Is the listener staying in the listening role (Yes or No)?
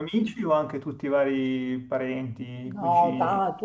No